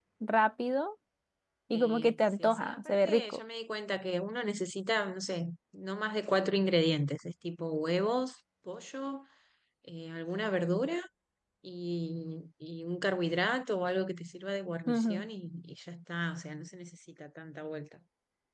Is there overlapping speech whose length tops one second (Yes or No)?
Yes